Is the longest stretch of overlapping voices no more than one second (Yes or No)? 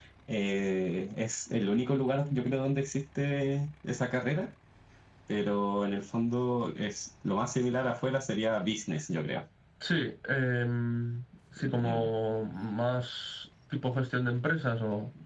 Yes